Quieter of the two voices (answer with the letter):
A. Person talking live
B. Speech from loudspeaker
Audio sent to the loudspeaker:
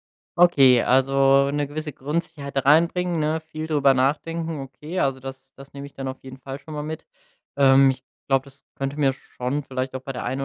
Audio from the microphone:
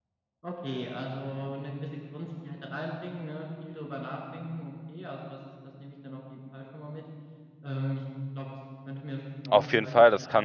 B